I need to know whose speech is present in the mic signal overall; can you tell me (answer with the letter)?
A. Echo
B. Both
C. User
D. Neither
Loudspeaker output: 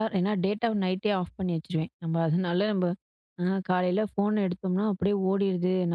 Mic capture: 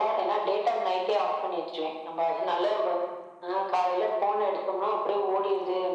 A